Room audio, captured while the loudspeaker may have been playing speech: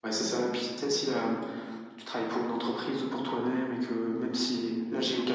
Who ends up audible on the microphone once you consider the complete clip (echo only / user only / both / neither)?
echo only